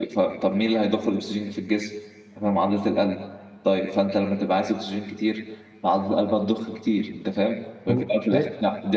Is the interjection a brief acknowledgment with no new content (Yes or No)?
Yes